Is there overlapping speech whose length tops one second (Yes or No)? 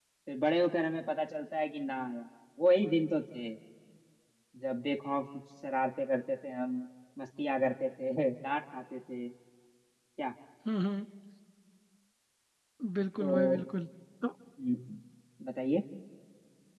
No